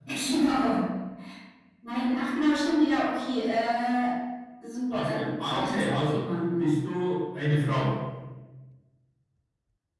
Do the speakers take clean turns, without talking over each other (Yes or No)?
No